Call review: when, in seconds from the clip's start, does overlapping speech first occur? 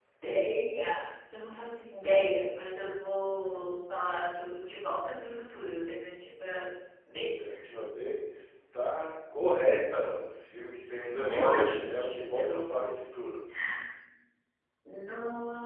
11.1 s

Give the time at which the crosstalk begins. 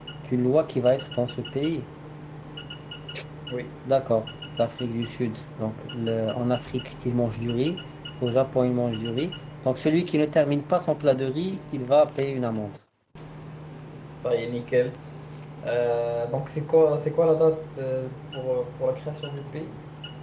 none

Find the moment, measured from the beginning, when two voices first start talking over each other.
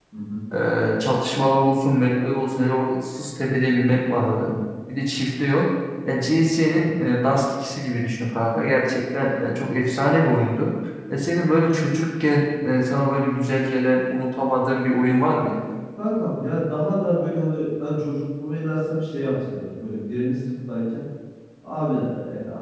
none

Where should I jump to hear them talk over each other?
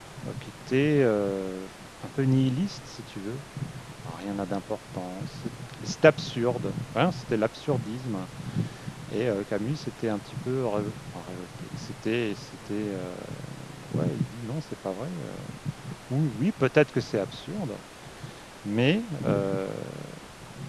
none

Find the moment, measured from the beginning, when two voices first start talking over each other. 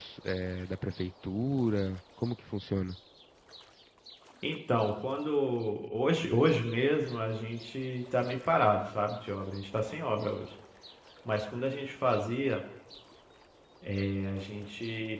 none

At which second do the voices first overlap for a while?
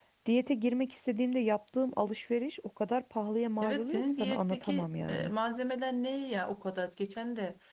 3.6 s

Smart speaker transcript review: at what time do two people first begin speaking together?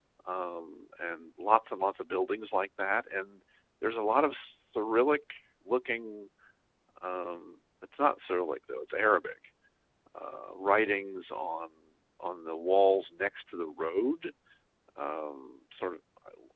none

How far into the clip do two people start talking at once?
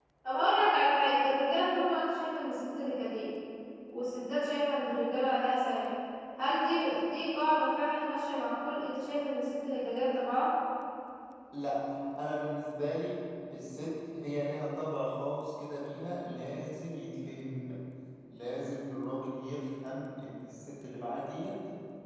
none

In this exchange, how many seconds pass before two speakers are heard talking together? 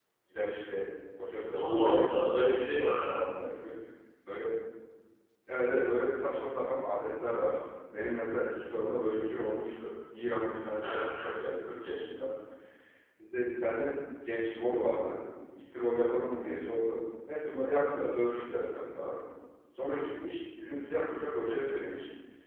1.5 s

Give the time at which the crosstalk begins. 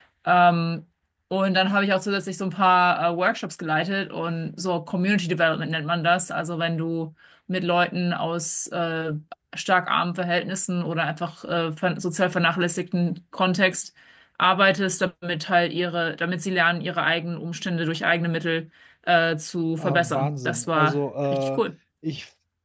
19.8 s

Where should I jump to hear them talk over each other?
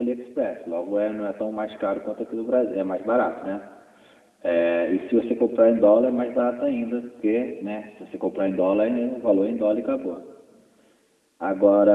none

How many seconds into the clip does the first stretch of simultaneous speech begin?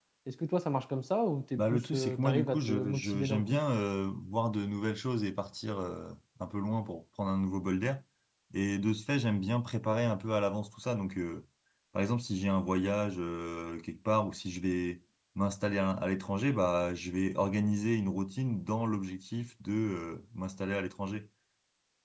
1.5 s

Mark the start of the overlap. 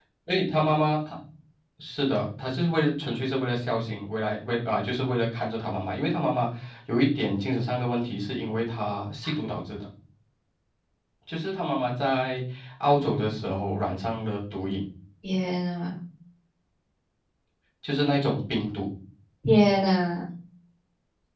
none

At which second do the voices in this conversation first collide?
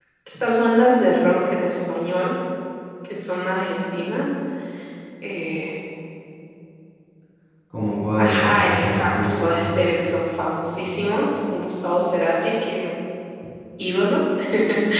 8.2 s

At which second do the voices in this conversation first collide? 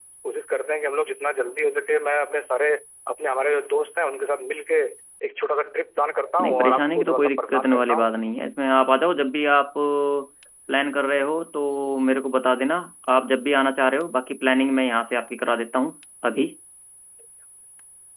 6.4 s

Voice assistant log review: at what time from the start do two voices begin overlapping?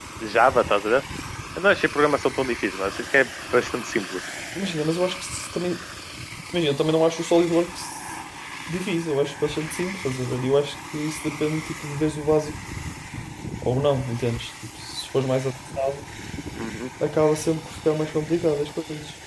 none

